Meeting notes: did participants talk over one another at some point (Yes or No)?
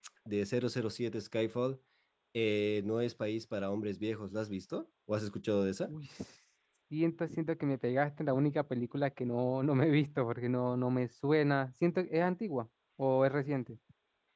No